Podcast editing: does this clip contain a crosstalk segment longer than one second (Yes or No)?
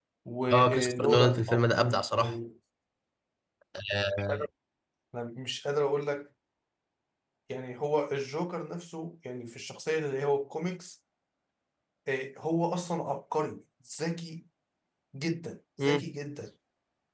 Yes